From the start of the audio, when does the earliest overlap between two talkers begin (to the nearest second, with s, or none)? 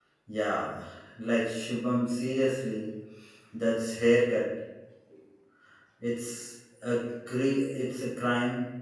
none